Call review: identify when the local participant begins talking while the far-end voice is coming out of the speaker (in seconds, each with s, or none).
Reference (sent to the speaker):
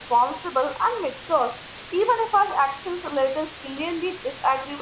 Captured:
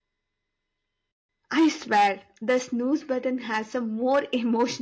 1.5 s